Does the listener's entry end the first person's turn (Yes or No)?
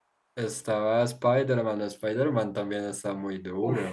Yes